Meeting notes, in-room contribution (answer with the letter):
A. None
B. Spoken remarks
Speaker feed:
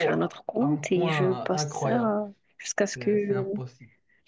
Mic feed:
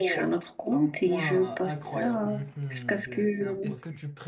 B